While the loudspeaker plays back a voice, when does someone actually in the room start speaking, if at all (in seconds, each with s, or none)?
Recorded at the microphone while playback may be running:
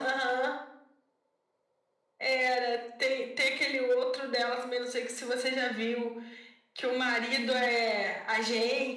none